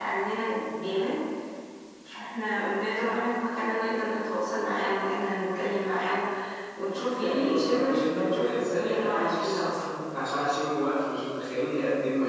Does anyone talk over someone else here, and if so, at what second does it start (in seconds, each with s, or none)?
7.1 s